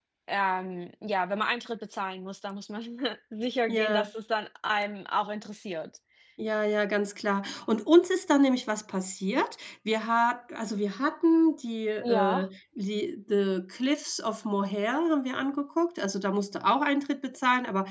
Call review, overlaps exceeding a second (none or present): none